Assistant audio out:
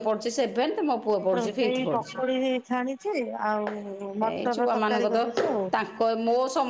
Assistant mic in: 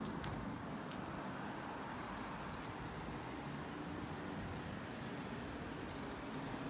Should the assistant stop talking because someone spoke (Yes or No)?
No